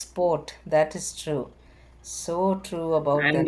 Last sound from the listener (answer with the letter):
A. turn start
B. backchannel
A